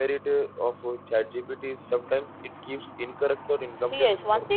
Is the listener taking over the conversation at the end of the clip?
Yes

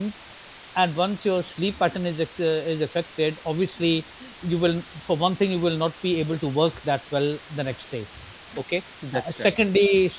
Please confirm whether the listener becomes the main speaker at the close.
No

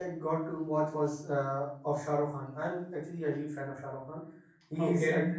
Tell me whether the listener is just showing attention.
Yes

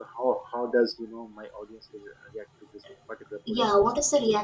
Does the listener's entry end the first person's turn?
Yes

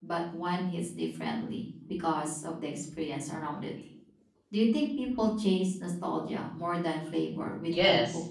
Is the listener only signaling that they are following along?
No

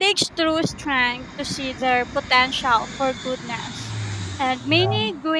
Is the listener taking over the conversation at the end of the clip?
No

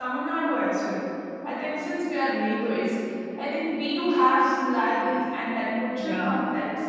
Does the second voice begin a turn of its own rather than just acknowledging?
No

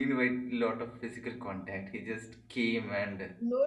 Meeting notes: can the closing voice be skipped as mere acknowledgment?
No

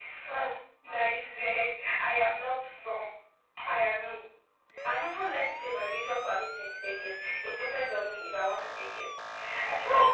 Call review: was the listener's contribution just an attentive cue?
Yes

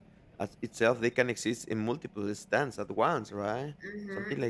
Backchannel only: No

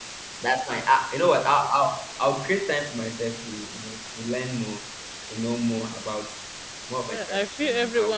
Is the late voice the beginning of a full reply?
Yes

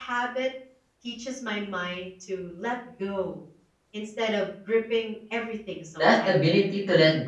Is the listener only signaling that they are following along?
No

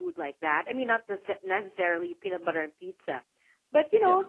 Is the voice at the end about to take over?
No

